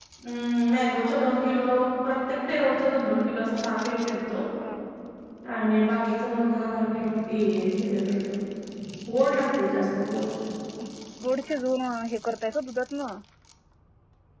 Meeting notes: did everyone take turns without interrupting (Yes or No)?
Yes